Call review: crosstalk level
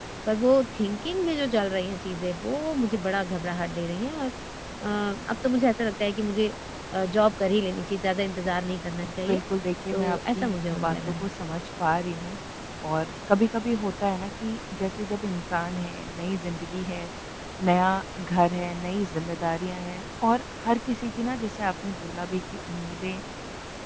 present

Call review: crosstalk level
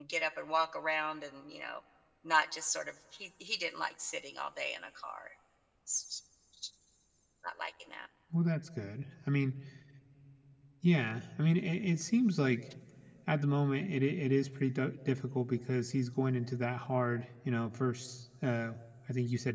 none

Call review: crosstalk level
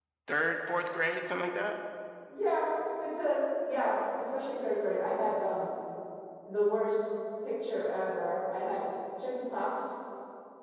none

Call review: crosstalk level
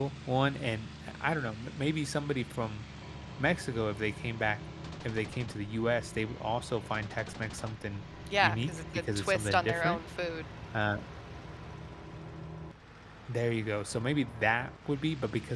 present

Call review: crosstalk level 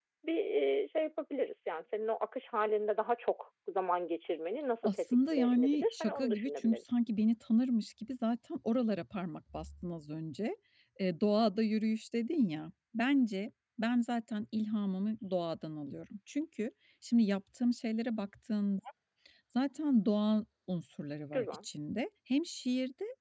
present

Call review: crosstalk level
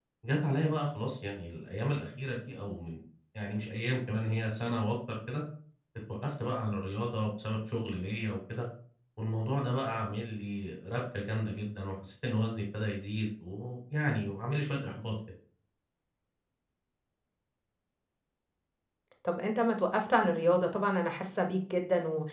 none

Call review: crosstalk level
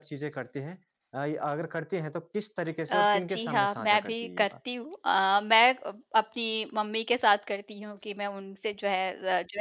present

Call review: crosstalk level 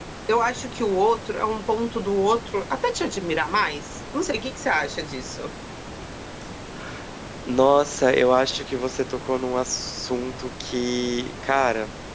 none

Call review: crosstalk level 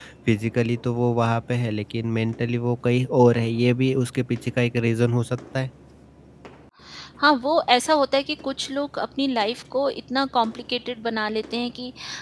none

